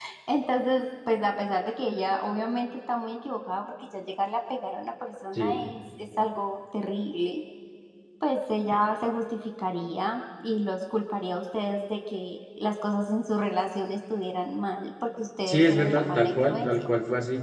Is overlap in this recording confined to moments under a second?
No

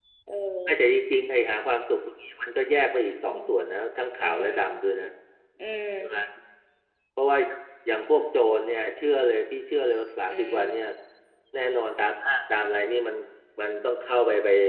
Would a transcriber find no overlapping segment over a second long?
Yes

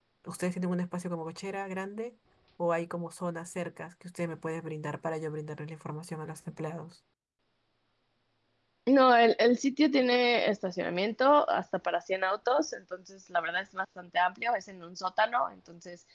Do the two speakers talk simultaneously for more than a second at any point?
No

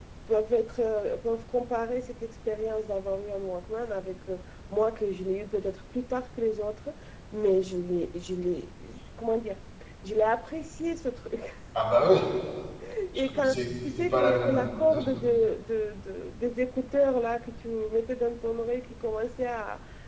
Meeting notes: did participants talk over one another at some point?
Yes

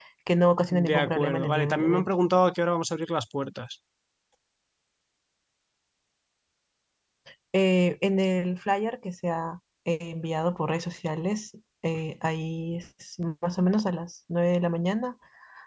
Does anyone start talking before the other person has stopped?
Yes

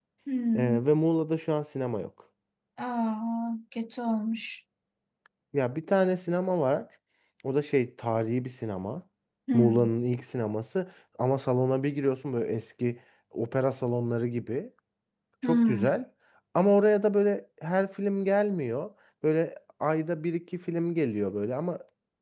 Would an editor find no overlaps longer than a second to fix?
Yes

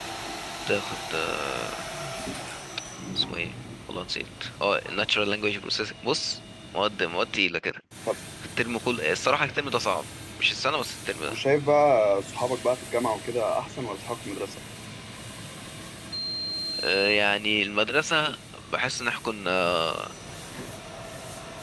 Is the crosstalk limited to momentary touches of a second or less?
Yes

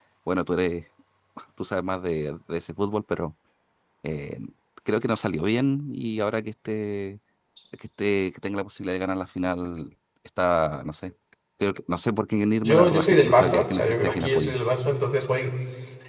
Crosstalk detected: Yes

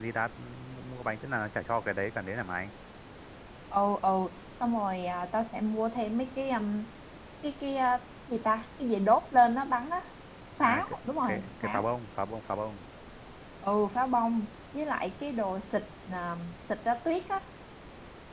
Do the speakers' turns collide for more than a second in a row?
Yes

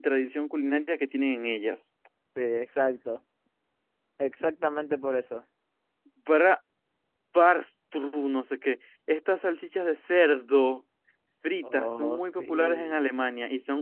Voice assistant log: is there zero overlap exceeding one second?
No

